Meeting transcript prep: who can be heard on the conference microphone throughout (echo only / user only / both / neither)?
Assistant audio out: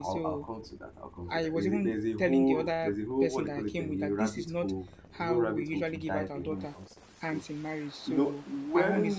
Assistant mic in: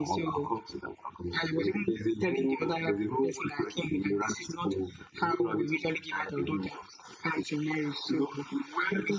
echo only